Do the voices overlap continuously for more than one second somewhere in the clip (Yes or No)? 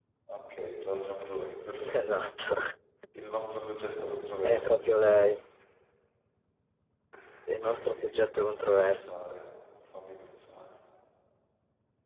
Yes